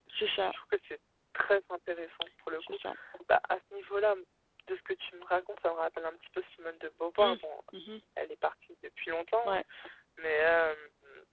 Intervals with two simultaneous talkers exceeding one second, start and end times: none

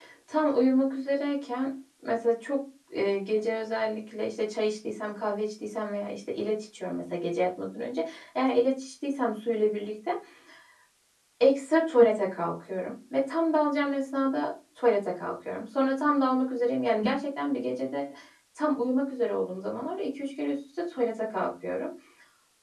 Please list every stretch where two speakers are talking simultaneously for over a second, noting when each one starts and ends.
none

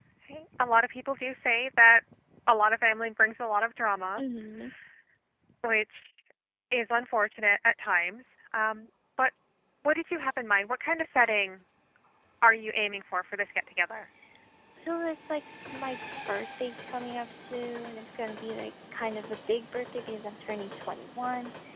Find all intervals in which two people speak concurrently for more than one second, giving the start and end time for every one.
none

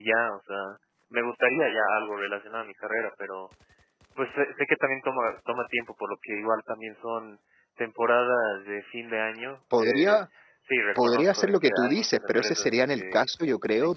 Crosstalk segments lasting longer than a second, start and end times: 11.0-13.2

